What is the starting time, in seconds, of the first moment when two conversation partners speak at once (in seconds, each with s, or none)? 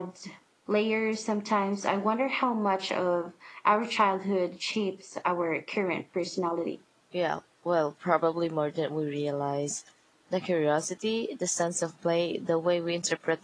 none